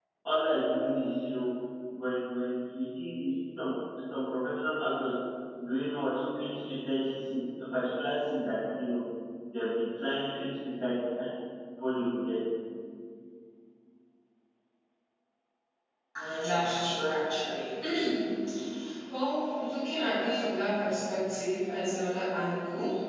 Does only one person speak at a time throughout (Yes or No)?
Yes